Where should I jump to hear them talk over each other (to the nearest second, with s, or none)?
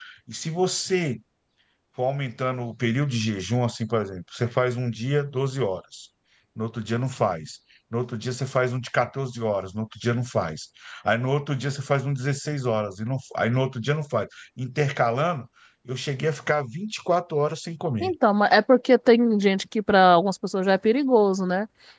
none